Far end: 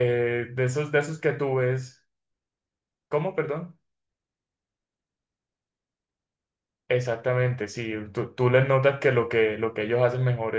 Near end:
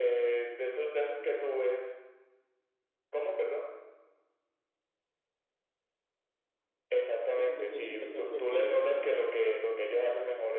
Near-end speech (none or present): present